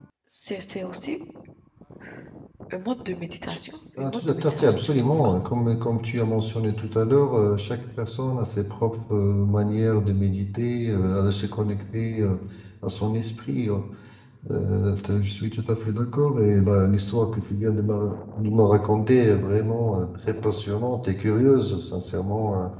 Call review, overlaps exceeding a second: present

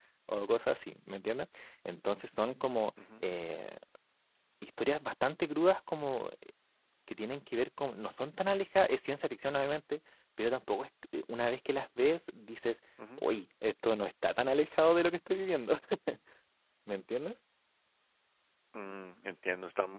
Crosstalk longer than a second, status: none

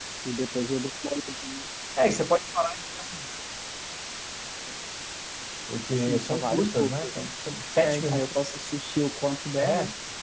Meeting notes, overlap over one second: present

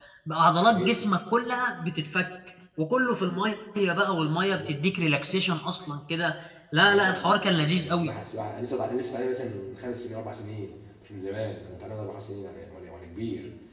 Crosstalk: present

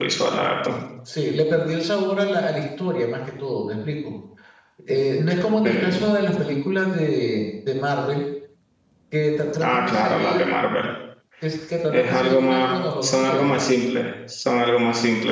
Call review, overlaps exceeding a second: present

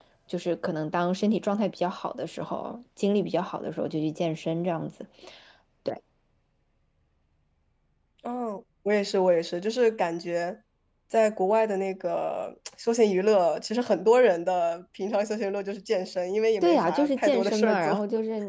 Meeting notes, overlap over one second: present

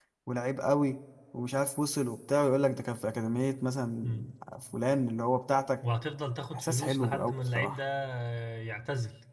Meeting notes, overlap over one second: present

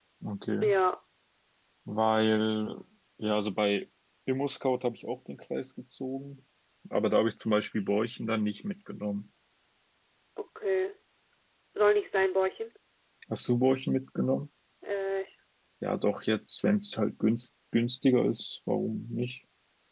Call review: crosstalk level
none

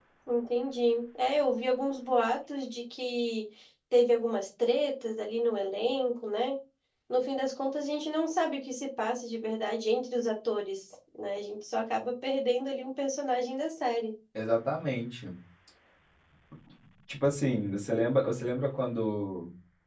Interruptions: none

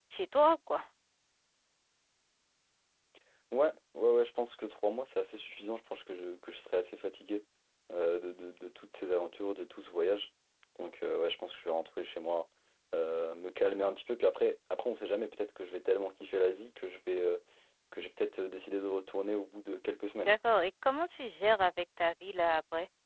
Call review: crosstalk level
none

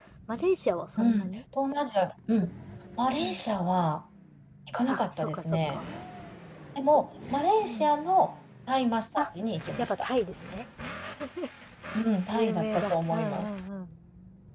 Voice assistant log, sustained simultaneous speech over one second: present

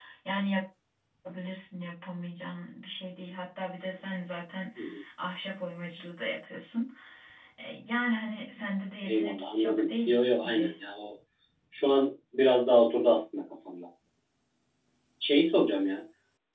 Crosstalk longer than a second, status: present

